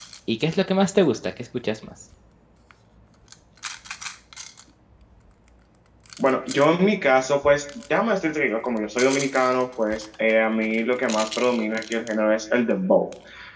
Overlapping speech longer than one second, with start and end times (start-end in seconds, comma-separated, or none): none